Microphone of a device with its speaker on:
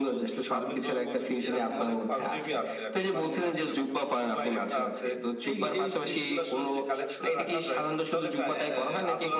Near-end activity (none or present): none